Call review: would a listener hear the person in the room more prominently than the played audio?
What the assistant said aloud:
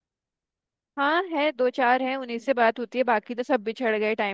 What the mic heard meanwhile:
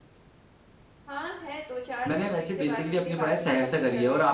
Yes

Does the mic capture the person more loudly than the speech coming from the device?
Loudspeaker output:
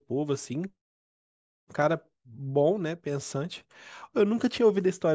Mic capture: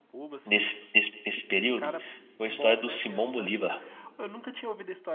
Yes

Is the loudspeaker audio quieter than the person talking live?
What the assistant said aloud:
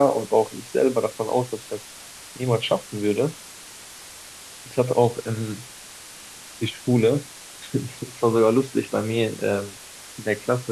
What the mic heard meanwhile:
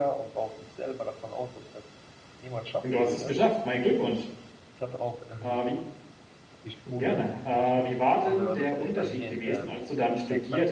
Yes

